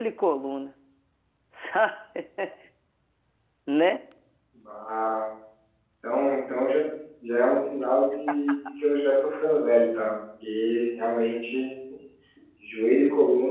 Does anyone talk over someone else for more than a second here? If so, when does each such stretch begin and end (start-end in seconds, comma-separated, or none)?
none